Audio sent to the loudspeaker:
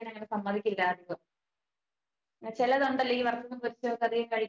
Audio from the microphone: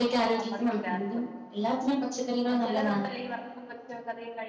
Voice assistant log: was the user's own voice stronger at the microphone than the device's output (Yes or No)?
Yes